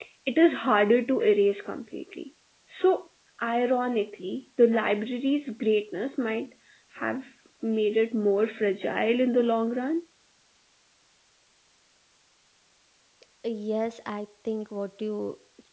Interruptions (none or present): none